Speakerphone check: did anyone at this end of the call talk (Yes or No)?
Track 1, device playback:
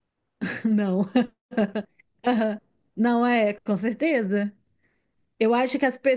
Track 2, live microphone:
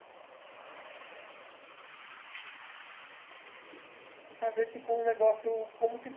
Yes